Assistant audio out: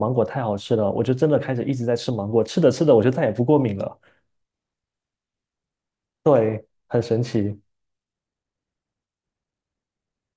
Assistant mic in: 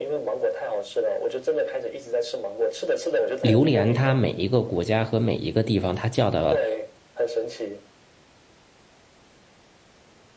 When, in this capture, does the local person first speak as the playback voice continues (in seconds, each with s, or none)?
3.4 s